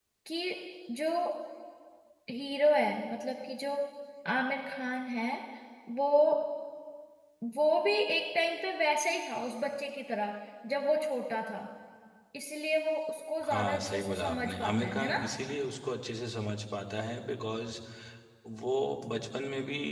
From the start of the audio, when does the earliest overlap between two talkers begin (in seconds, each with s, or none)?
13.4 s